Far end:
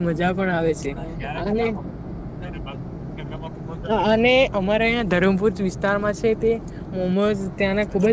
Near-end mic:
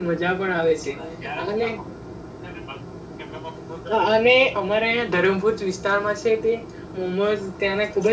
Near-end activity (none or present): none